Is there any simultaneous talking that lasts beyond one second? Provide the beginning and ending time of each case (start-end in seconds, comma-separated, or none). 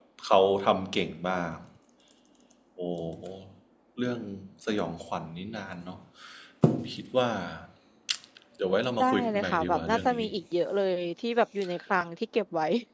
9.0-10.2